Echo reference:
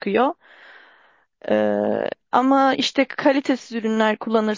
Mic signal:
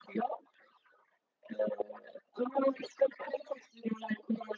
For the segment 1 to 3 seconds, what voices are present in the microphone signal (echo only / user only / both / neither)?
echo only